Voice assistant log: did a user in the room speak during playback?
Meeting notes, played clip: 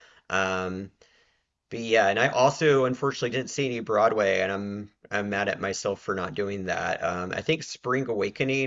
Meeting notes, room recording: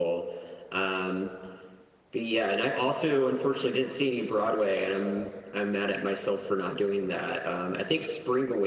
No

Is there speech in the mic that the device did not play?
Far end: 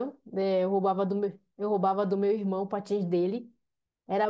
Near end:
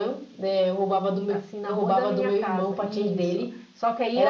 Yes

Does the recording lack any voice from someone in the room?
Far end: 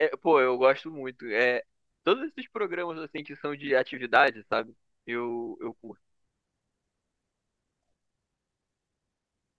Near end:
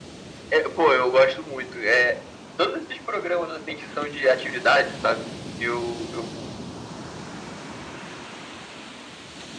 Yes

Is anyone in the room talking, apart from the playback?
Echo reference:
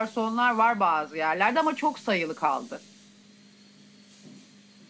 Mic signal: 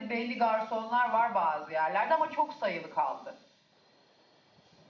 No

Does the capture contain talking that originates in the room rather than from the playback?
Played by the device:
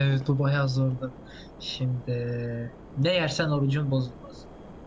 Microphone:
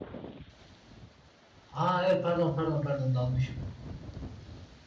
Yes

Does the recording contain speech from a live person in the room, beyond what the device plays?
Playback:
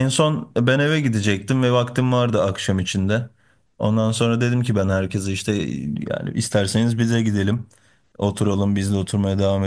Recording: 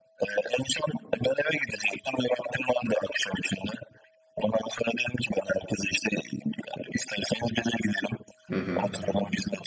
Yes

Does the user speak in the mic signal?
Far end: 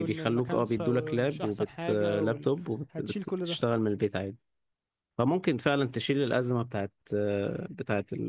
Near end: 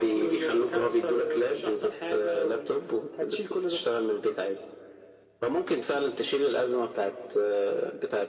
No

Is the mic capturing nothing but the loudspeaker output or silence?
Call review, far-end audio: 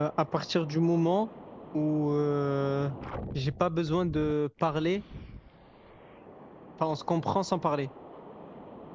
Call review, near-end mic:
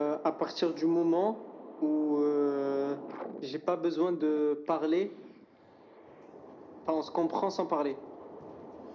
Yes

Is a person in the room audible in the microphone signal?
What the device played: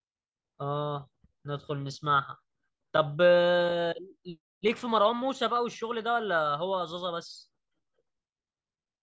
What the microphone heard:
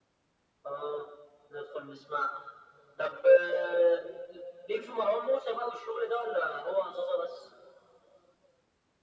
No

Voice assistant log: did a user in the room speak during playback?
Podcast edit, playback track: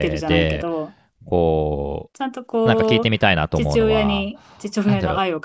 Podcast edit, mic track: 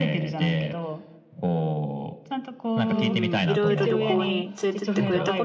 Yes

